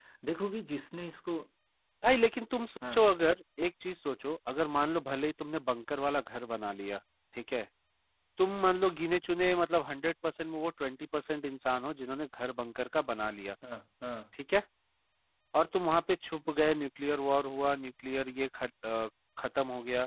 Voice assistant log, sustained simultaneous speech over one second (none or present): none